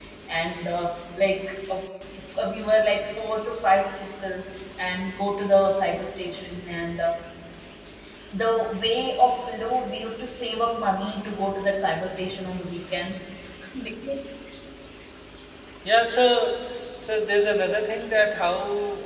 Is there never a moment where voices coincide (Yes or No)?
Yes